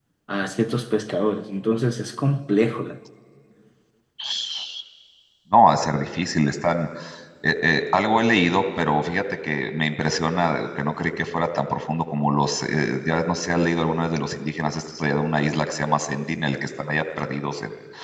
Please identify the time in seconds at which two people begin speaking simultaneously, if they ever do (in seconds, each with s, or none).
none